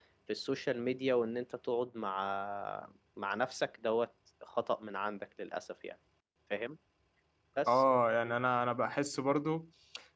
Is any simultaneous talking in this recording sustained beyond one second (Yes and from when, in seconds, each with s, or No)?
No